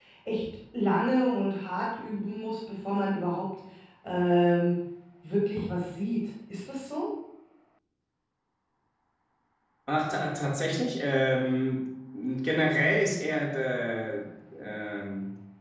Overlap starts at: none

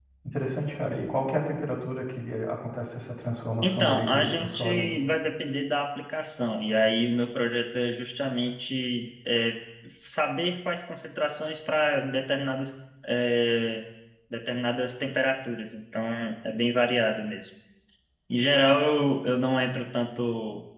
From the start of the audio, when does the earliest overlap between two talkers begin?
3.6 s

